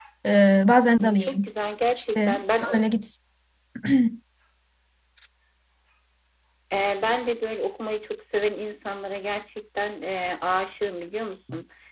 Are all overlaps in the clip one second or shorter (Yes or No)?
Yes